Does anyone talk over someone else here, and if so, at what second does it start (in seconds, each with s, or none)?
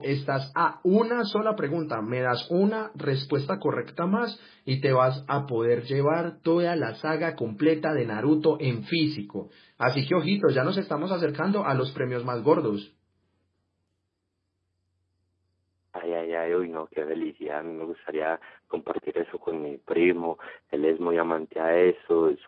none